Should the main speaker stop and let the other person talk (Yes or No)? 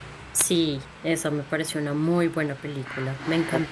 No